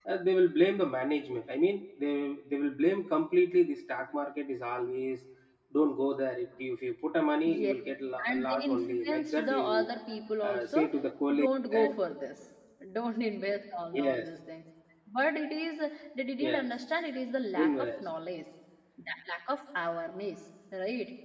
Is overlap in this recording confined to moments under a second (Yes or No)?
No